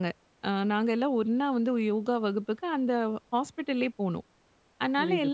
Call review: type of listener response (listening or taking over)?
listening